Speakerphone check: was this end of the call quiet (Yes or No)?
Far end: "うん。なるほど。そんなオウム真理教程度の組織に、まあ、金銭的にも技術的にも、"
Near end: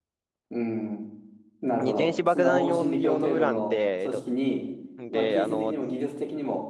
No